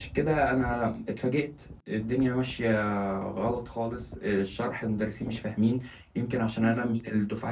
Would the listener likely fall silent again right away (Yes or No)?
Yes